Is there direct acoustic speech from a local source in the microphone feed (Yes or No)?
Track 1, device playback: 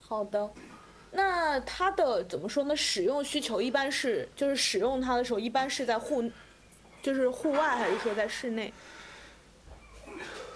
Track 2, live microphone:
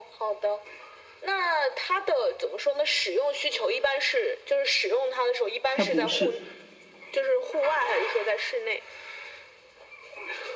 Yes